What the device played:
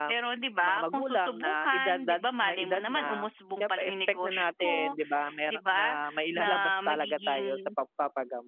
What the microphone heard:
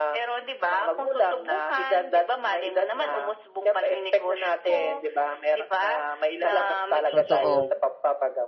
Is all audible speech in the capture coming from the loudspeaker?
No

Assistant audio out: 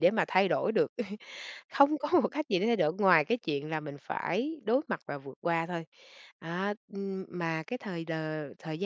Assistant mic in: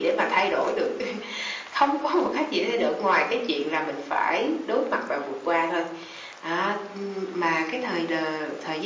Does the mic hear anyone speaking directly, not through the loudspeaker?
No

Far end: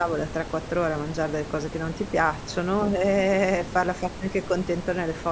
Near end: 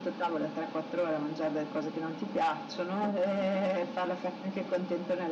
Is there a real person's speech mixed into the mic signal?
No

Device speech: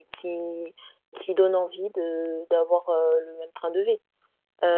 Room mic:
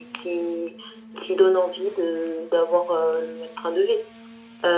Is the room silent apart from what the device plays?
Yes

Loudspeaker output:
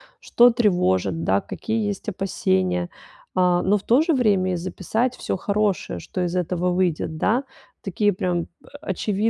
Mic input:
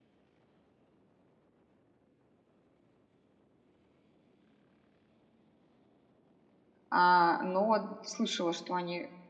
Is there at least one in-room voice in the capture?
Yes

